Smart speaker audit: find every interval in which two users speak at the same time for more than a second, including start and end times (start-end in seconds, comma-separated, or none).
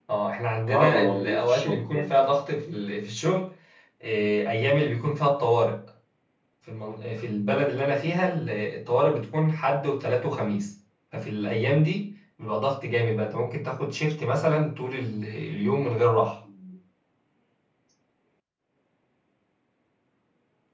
0.7-2.1